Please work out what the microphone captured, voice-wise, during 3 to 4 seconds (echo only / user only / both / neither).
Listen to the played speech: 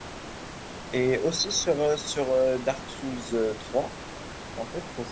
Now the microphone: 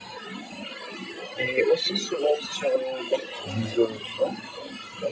both